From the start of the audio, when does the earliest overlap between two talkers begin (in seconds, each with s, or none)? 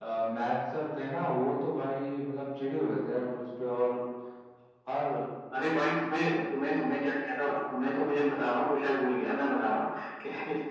none